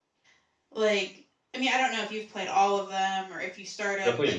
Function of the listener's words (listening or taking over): taking over